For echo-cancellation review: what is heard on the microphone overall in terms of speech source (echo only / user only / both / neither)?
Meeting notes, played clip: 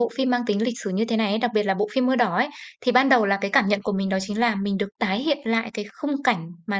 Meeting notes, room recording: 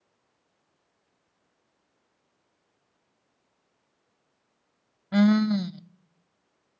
user only